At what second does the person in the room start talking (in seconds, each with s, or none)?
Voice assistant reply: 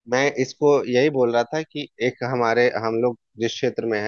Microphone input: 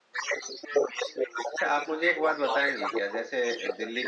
1.6 s